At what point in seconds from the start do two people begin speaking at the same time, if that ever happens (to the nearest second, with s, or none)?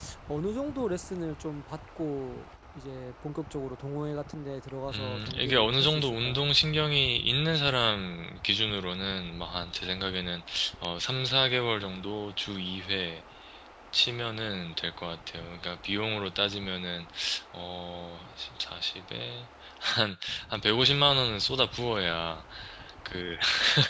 5 s